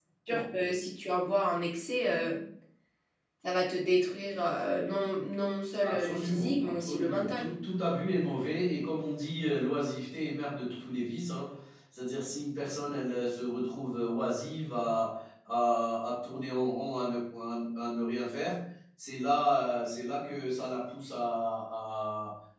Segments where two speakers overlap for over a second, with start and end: 5.8-7.5

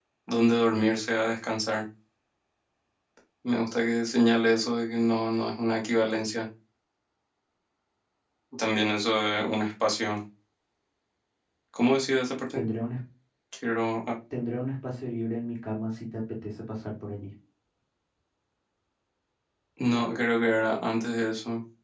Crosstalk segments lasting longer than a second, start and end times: none

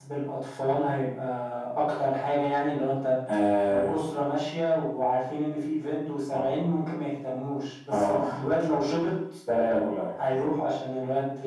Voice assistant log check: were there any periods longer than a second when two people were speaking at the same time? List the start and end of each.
none

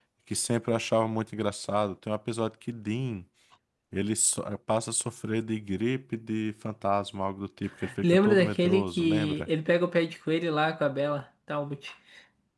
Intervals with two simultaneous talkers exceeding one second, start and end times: 8.0-9.5

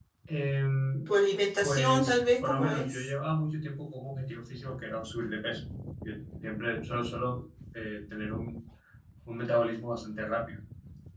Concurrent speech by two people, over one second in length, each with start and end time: 1.6-3.1

